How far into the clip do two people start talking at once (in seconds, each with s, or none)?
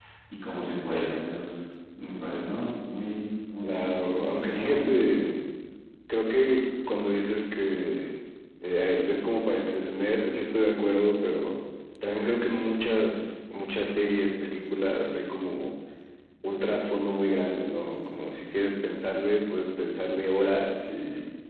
3.6 s